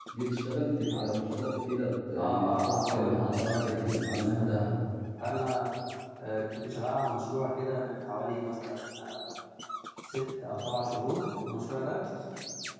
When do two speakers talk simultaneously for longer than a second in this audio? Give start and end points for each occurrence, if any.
2.1-4.8

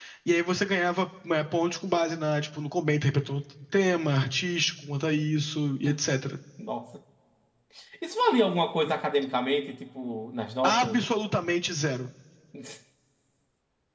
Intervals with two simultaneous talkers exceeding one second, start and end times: none

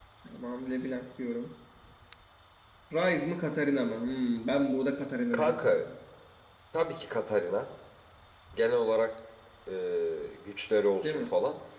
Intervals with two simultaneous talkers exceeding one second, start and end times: none

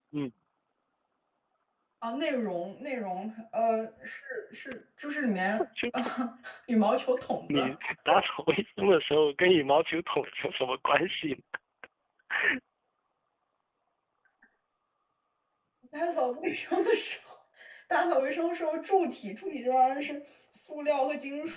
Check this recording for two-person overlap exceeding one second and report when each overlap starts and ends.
none

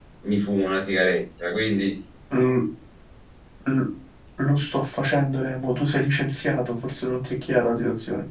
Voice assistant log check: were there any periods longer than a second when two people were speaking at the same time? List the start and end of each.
none

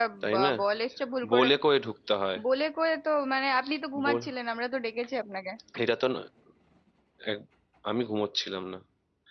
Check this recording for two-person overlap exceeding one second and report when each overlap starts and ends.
none

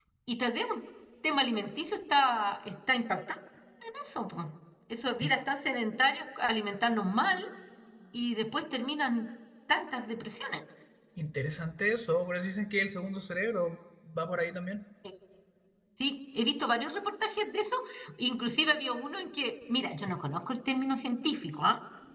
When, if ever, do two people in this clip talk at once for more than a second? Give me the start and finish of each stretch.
none

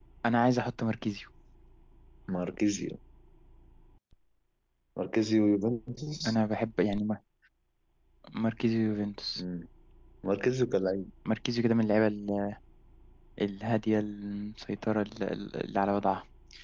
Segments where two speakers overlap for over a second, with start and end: none

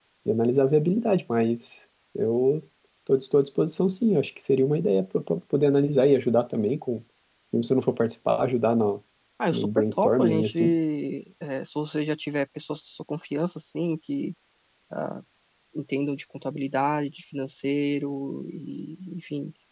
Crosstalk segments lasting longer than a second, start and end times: 9.5-10.7

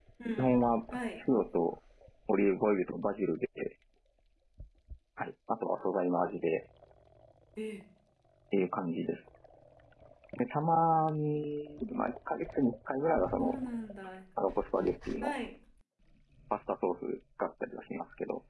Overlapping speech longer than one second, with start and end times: none

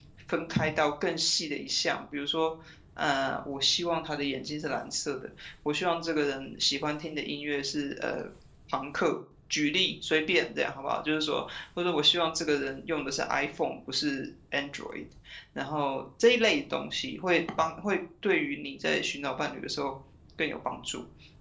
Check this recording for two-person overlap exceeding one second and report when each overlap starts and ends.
none

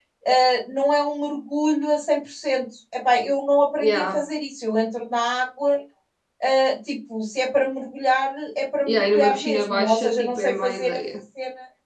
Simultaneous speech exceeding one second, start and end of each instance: 8.9-11.0

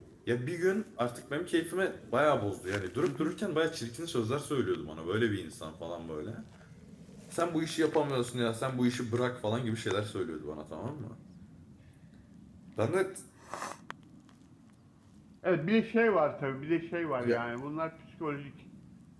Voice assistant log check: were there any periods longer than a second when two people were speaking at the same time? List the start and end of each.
none

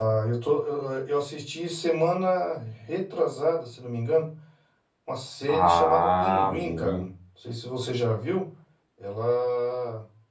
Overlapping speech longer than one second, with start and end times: 5.5-7.0

